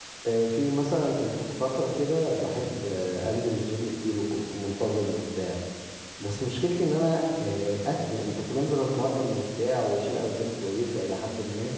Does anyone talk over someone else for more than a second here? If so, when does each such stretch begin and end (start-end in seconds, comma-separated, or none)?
none